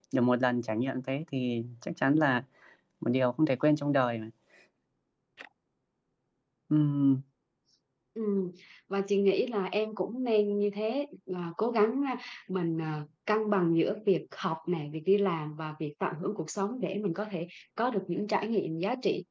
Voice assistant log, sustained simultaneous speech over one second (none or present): none